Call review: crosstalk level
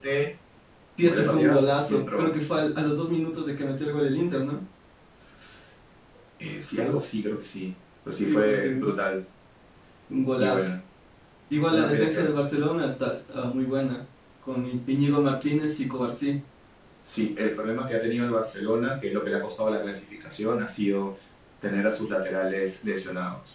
present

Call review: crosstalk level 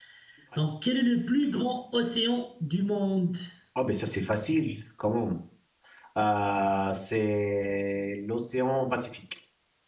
none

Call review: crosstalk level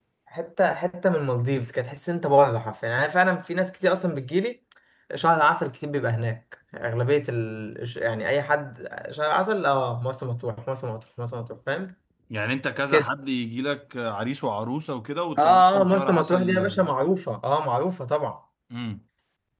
present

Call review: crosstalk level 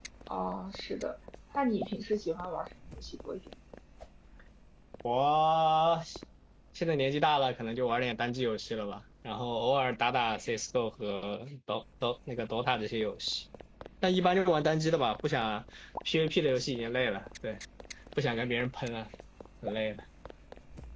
none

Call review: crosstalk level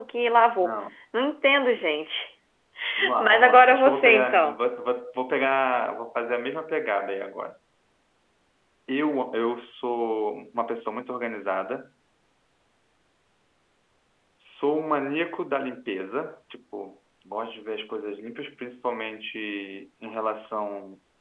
present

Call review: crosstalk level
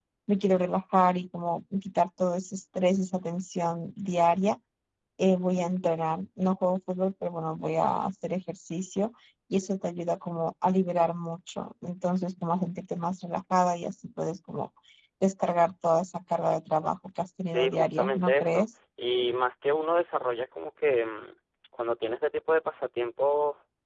present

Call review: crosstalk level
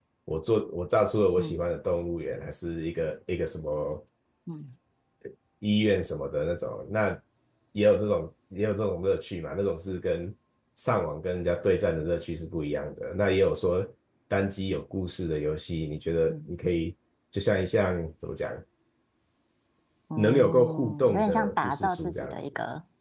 present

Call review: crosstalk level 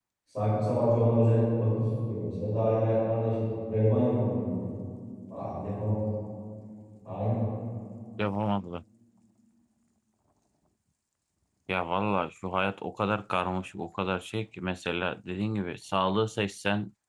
none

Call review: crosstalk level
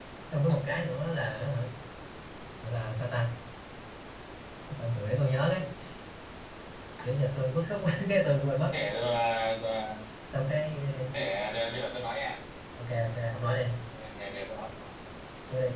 none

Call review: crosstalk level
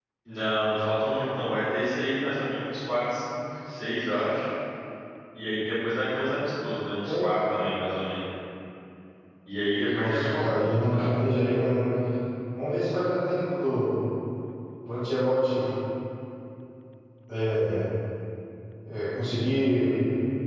present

